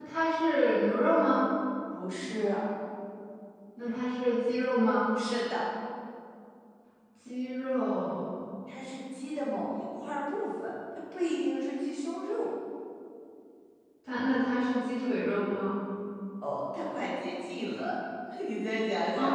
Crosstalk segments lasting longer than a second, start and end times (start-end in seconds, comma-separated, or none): none